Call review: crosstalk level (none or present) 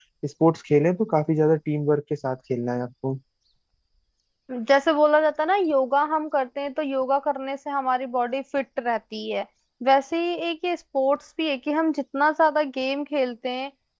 none